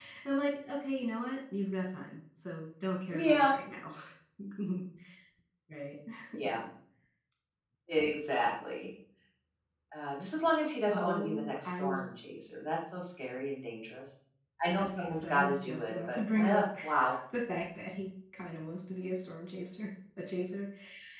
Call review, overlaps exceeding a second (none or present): present